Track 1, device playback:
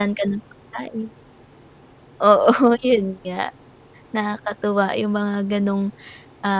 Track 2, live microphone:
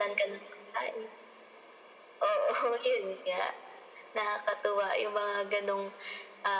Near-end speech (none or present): none